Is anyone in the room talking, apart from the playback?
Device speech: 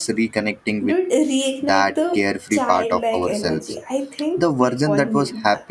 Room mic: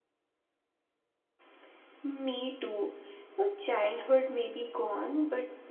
Yes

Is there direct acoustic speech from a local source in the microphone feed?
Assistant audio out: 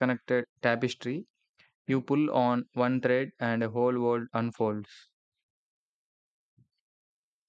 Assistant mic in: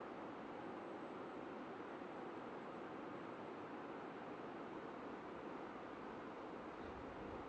No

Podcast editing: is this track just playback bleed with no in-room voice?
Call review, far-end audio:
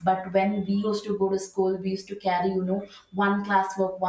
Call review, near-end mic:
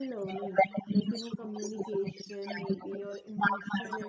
No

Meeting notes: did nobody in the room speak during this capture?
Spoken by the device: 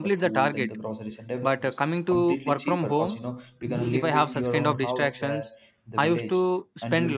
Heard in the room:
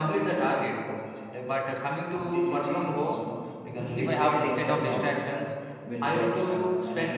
No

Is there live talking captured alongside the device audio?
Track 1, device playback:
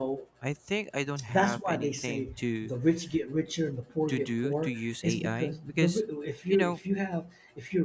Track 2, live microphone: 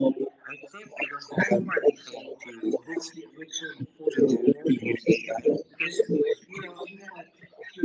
No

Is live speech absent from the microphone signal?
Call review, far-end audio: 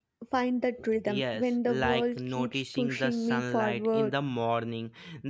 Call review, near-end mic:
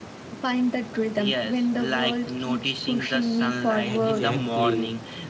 No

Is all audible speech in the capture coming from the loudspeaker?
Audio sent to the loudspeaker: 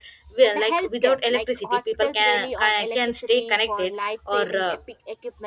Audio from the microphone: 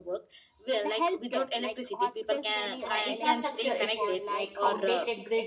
No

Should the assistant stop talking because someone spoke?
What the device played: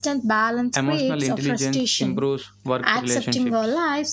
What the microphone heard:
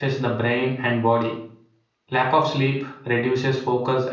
Yes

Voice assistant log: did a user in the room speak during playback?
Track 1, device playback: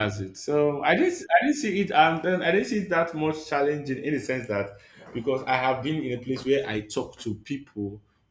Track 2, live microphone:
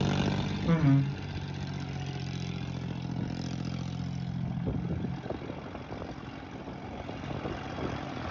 Yes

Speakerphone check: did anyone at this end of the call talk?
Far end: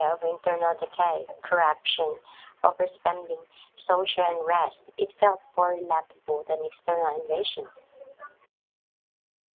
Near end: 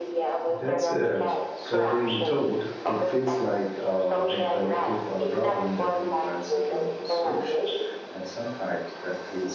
Yes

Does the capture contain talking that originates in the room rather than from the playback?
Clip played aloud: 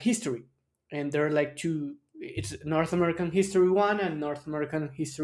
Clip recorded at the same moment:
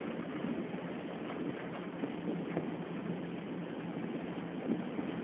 No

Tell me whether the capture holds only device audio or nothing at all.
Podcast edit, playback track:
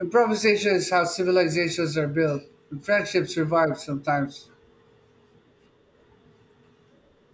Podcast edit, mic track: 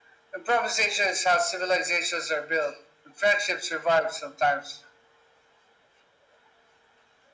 Yes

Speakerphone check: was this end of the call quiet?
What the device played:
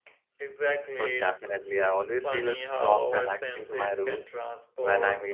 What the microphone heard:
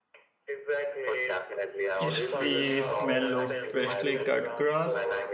No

